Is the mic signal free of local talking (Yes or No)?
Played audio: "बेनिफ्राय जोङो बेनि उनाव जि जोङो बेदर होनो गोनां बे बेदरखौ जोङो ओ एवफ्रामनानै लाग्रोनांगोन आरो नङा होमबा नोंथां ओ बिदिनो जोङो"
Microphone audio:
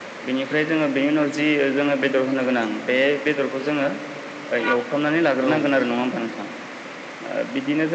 No